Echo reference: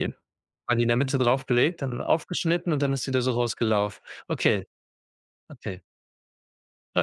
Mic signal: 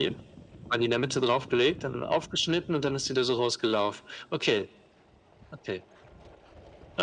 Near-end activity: none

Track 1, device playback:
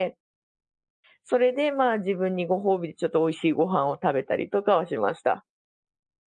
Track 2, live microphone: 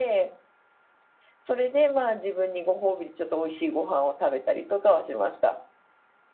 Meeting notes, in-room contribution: none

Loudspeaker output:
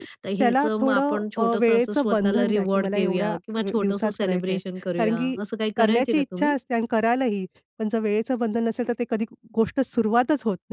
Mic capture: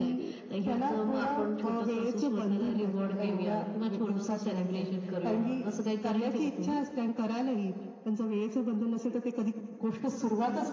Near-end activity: none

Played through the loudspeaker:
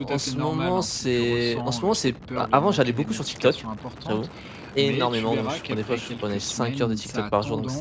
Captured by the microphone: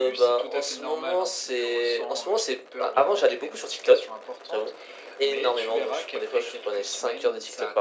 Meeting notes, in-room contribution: none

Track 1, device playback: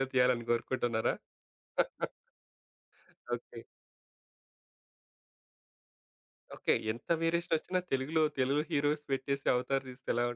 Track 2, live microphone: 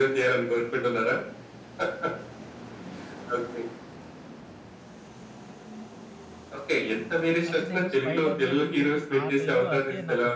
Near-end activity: present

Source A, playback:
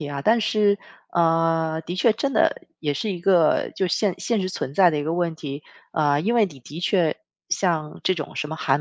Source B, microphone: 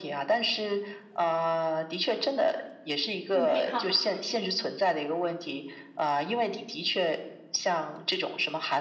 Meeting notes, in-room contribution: present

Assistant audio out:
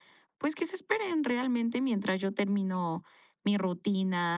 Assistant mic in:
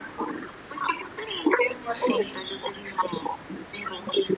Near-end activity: present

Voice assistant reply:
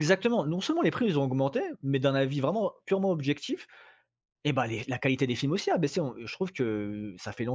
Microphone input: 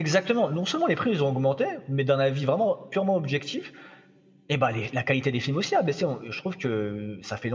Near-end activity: none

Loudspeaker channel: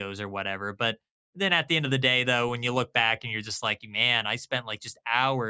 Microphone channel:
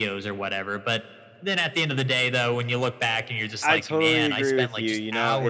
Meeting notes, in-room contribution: present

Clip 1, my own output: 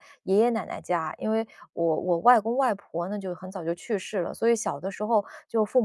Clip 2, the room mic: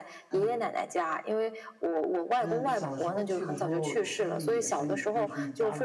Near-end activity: present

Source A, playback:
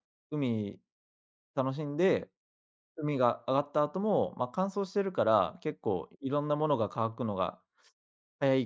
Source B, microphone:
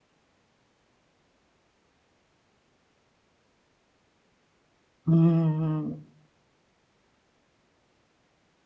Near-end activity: present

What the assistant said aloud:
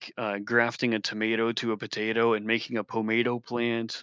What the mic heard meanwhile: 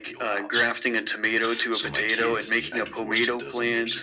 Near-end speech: present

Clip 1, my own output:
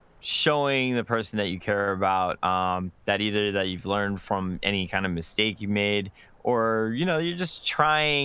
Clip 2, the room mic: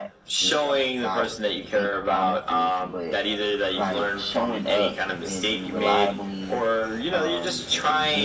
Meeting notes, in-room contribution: present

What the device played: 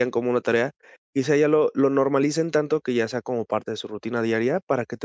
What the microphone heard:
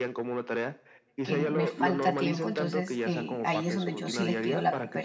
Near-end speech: present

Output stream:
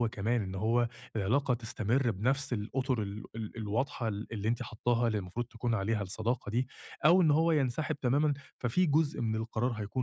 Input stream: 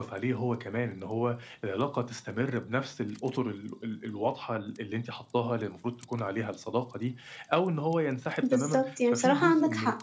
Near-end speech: present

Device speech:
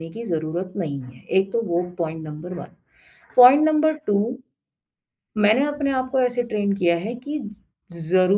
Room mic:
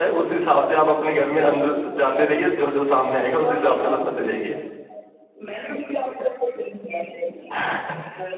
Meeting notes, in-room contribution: present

